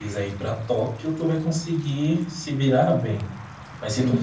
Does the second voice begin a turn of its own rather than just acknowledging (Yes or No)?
No